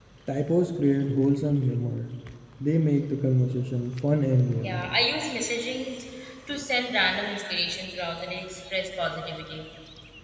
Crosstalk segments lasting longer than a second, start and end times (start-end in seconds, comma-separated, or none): none